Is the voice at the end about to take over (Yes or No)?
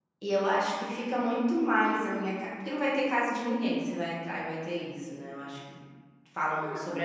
No